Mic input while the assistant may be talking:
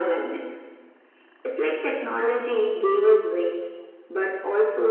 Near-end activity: none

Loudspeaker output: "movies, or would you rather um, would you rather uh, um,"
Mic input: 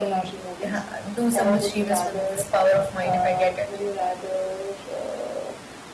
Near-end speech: present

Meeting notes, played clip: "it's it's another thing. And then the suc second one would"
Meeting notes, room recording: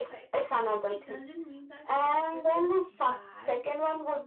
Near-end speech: present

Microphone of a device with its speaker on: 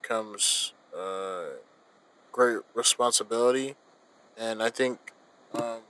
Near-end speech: present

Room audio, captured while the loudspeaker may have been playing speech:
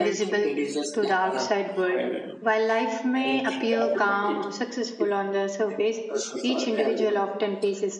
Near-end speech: present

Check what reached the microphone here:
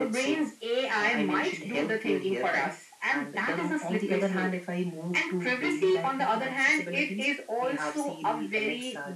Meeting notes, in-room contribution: none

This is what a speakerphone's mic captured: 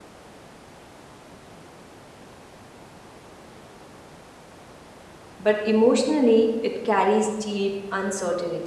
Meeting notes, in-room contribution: present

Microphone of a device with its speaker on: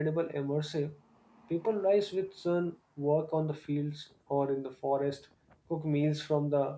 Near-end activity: present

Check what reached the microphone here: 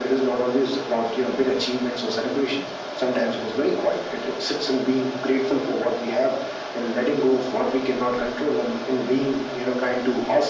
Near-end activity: none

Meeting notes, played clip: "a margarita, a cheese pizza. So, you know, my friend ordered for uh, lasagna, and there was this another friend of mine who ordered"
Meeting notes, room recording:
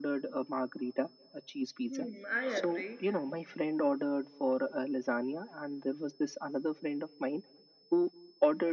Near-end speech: present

